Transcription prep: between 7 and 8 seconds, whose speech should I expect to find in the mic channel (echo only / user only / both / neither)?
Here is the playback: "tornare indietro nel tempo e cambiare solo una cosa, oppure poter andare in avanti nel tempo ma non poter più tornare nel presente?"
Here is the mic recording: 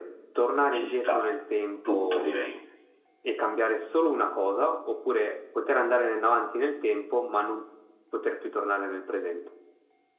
echo only